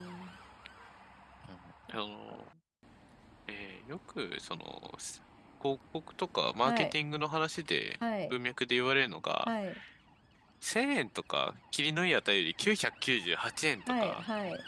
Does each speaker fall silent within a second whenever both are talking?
Yes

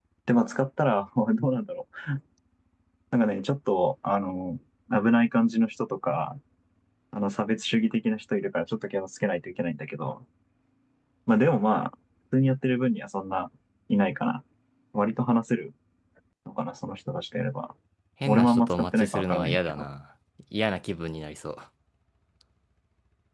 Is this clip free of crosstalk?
No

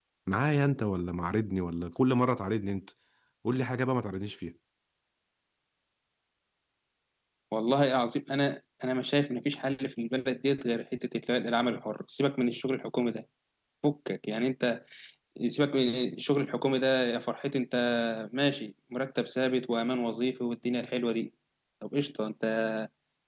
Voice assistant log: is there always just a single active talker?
Yes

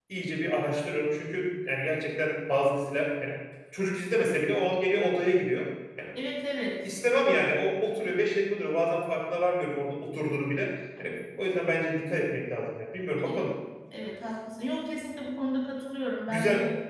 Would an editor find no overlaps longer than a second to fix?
Yes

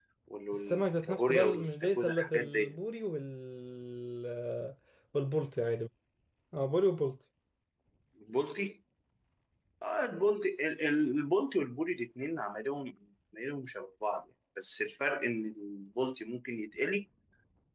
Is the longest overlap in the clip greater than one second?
Yes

